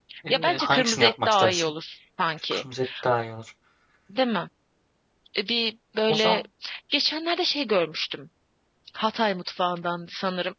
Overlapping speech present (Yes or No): Yes